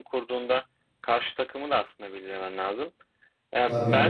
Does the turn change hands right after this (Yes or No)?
No